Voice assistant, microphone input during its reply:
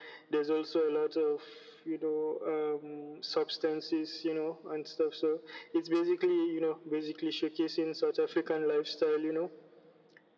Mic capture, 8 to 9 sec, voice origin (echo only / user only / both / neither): echo only